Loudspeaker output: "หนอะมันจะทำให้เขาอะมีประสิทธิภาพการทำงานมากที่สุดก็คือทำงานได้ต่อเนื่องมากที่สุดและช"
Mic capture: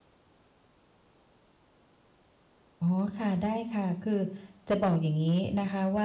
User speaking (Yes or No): Yes